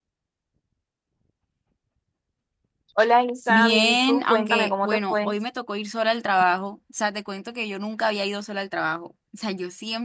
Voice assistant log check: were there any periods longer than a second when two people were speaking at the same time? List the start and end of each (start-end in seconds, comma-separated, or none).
3.5-5.3